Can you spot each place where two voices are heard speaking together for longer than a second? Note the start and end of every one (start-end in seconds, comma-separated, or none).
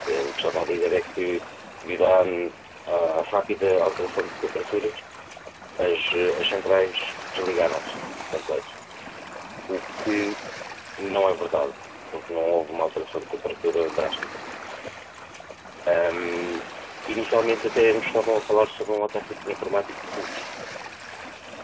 none